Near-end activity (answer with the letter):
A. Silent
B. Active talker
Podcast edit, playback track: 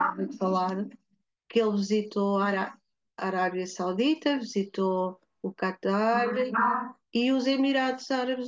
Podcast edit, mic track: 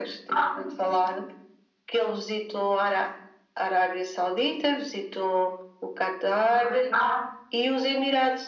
A